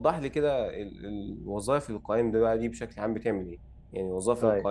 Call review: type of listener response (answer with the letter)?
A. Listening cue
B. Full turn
A